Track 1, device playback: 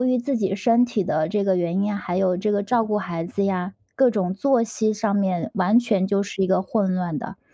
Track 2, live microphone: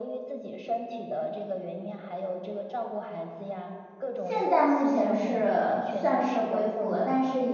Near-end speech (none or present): present